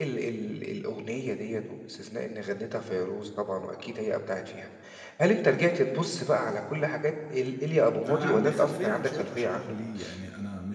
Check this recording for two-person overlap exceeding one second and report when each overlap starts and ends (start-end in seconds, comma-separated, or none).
8.1-9.7